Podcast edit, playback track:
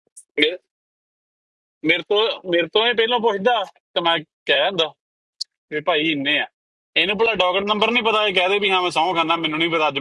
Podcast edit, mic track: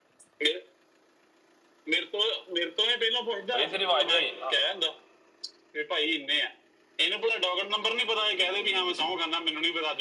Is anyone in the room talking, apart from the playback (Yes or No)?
Yes